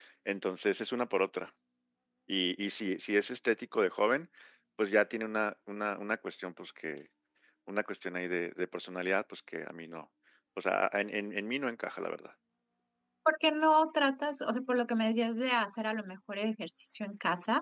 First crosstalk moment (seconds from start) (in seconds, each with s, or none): none